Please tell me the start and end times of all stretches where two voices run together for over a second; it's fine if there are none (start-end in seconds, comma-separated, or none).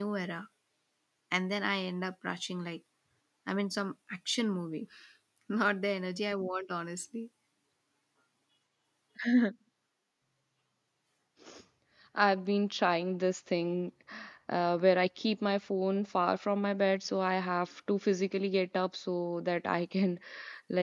none